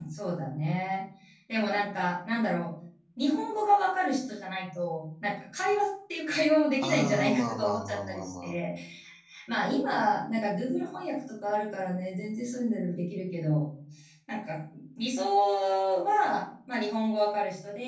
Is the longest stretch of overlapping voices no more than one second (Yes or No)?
No